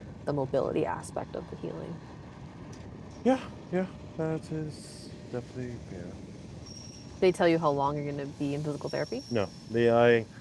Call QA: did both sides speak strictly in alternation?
Yes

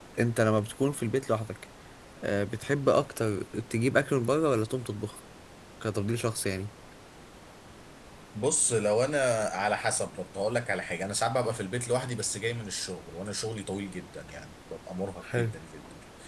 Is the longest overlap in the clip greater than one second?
No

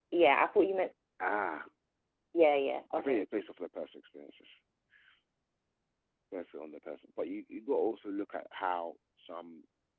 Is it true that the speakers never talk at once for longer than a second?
Yes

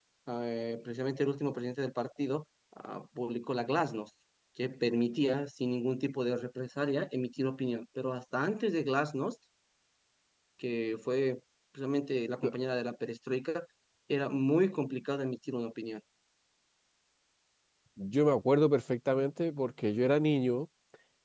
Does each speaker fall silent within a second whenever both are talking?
Yes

